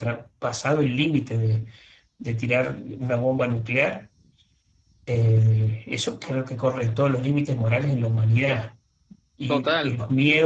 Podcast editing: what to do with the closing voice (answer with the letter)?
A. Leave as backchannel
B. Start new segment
A